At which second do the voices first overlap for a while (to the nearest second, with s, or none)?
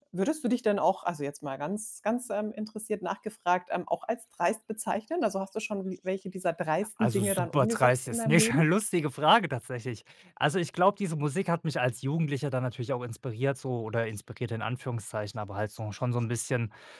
7 s